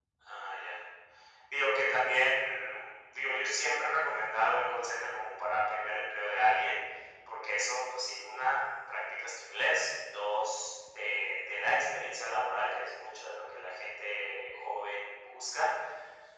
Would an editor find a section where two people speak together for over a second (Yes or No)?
No